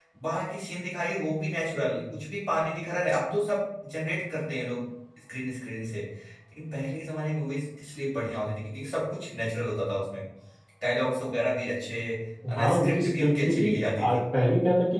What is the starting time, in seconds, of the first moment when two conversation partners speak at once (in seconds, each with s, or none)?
12.6 s